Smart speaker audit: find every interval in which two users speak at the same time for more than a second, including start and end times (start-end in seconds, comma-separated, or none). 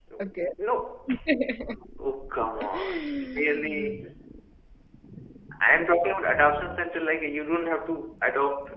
2.6-4.0